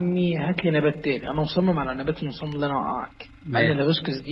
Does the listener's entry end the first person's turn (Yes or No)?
No